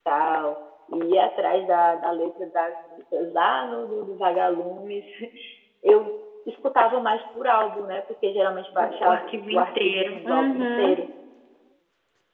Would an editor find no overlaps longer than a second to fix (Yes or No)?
No